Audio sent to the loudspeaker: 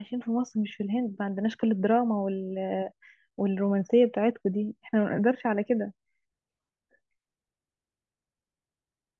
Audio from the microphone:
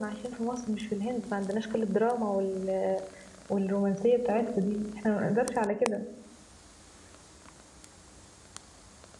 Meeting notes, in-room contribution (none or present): none